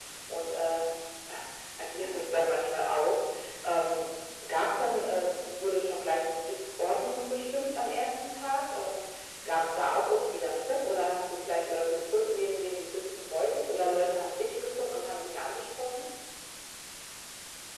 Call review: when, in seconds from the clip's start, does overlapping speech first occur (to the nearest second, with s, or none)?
none